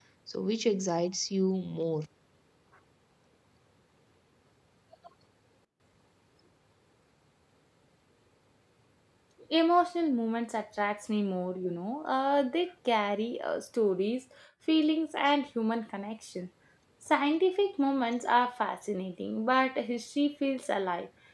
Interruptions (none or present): none